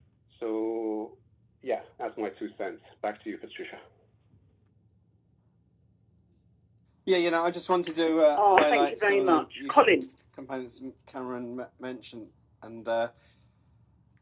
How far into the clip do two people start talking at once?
8.3 s

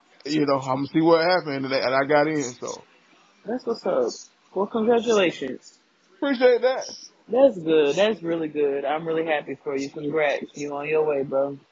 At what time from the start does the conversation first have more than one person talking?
none

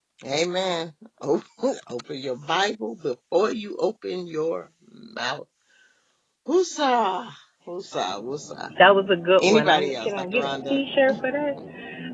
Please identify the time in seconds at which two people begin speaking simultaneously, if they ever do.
9.4 s

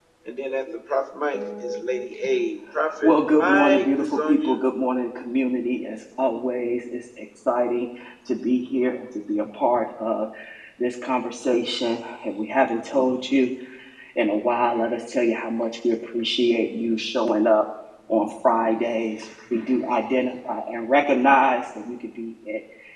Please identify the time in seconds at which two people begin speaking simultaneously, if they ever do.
3.0 s

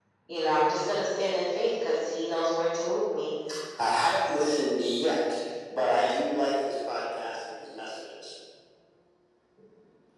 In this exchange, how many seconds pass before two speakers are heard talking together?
none

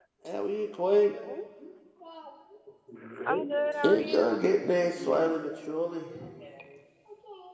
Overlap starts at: 3.2 s

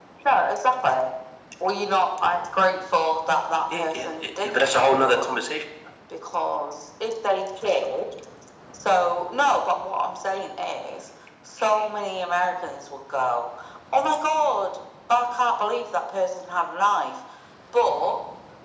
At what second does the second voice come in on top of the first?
3.7 s

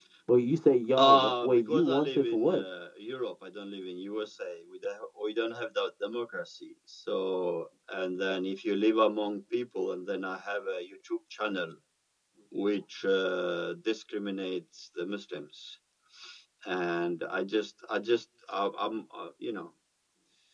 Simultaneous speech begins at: 1.0 s

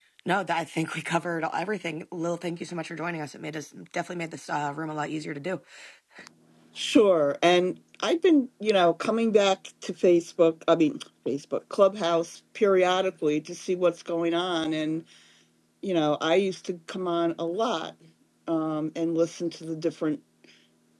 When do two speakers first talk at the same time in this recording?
none

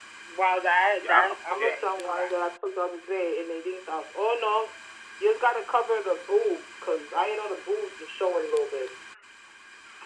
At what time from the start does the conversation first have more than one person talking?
1.0 s

